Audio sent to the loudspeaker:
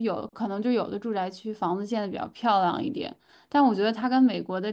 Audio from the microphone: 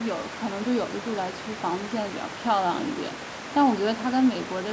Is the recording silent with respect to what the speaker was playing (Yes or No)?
No